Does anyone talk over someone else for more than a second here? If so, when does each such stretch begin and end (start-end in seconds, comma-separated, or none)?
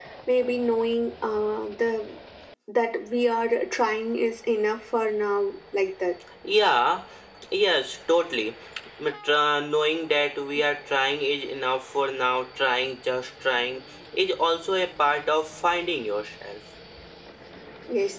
none